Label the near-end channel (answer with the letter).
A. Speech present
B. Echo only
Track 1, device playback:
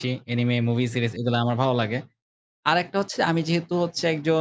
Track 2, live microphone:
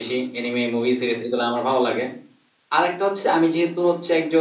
B